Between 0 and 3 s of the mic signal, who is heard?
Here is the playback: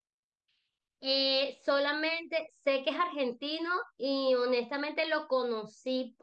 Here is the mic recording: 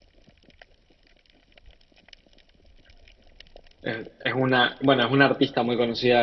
neither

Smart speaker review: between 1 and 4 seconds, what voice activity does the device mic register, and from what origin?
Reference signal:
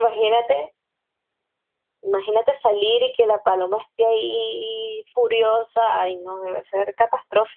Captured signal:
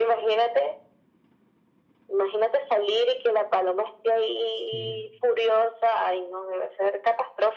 echo only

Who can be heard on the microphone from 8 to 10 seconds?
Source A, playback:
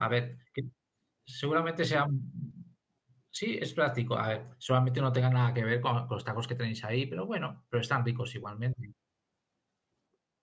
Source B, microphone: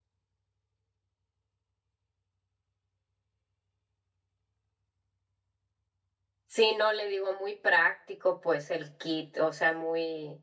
user only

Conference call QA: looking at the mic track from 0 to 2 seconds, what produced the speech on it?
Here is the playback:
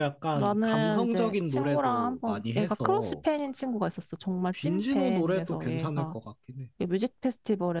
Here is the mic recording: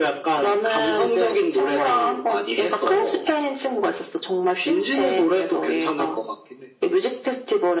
echo only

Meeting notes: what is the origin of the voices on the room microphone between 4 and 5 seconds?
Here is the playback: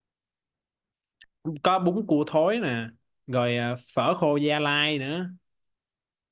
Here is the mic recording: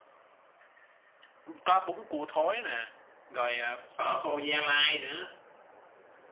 echo only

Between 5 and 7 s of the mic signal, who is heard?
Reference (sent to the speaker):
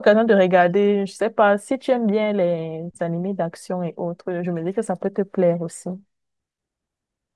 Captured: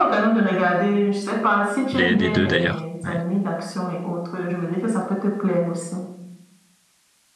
echo only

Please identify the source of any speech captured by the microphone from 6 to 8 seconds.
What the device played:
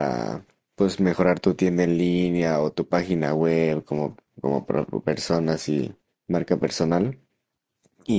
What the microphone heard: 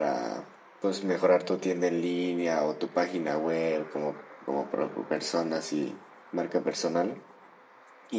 echo only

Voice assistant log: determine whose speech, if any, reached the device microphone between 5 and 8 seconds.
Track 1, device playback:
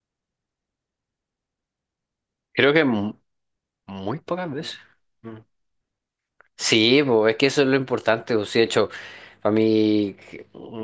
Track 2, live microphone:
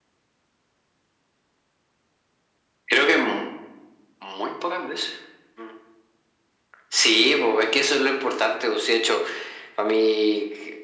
echo only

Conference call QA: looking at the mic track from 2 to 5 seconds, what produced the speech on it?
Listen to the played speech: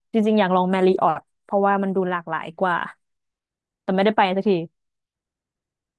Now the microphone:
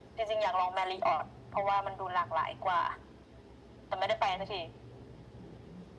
echo only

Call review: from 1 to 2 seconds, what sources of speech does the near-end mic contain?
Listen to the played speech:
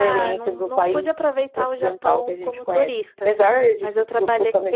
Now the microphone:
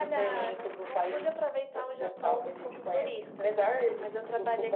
echo only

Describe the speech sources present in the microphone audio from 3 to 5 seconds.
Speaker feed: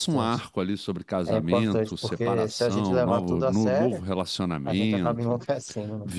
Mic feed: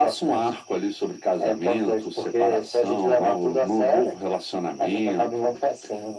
echo only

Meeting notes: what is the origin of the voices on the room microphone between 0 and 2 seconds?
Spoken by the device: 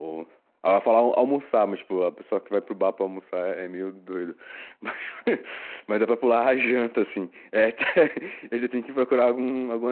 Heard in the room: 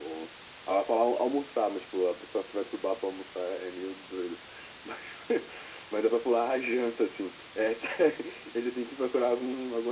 echo only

